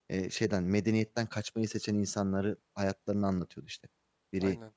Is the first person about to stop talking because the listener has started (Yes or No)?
No